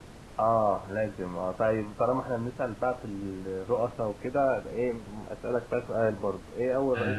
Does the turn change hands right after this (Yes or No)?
No